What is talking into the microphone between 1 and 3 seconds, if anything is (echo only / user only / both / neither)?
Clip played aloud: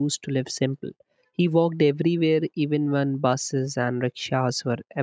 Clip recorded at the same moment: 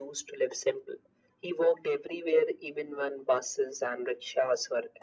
echo only